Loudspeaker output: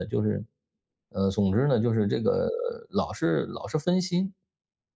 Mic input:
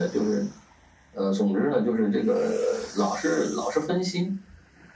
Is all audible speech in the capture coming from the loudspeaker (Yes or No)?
Yes